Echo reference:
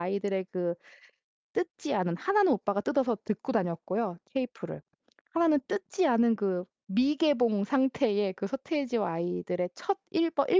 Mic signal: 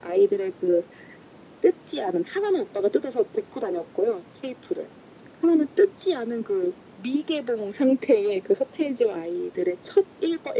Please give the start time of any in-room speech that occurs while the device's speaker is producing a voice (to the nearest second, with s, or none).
none